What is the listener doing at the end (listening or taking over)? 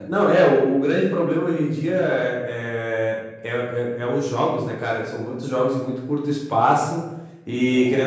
listening